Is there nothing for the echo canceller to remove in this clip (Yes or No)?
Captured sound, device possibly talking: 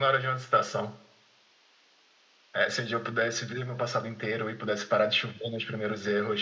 No